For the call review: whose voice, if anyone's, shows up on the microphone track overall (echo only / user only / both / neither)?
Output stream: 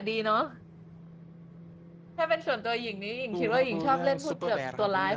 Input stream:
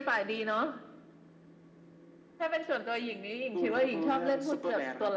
echo only